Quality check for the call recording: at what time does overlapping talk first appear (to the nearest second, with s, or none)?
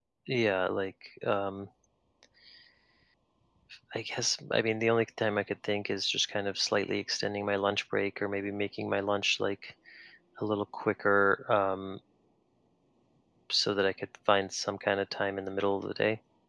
none